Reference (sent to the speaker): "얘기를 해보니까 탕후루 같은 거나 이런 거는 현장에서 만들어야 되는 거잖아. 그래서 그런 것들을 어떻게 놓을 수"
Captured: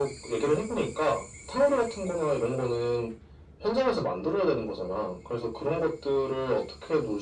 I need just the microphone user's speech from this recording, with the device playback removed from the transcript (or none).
none